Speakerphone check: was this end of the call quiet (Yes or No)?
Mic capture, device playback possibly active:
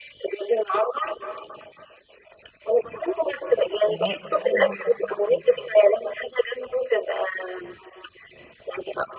No